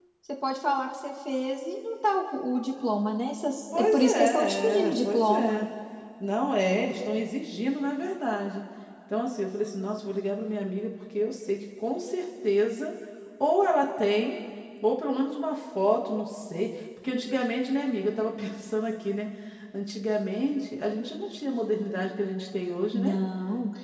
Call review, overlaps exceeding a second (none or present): present